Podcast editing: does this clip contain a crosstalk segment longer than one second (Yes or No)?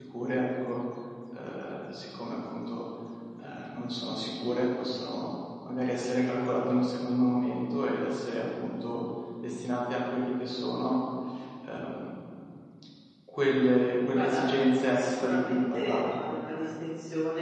Yes